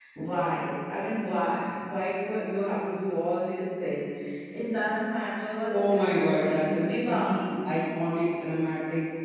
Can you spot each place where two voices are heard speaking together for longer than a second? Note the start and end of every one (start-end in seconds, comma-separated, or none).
5.9-7.2